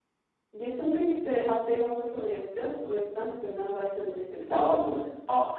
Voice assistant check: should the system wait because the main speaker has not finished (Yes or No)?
No